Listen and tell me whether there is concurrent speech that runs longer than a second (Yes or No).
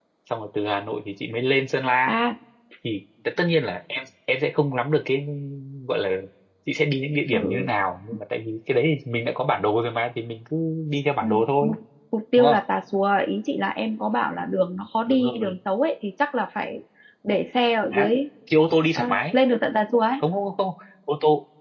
No